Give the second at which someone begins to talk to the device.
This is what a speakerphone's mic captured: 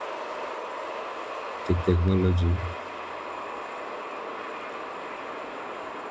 1.6 s

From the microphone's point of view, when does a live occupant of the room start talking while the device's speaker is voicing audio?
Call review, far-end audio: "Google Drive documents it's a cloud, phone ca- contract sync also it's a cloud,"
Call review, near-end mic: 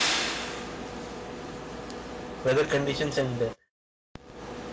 2.4 s

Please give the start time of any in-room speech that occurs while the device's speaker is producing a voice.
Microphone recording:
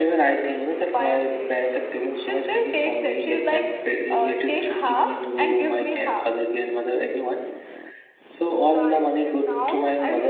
8.7 s

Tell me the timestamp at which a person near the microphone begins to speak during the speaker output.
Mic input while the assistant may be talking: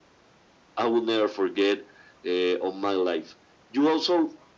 none

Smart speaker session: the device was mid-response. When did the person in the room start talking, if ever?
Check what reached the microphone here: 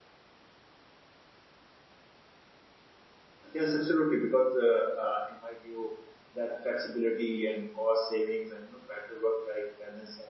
3.5 s

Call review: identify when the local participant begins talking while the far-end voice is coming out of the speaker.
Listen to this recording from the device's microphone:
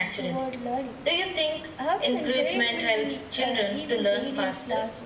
none

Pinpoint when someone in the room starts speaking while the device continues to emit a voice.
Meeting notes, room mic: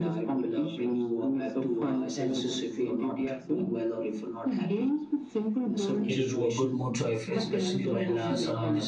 6.0 s

